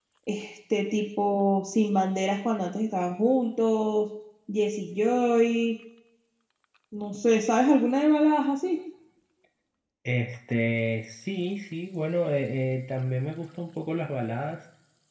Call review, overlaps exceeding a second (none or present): none